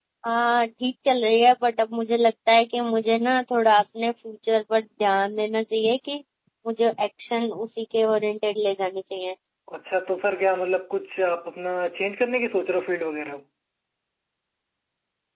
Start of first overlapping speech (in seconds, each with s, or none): none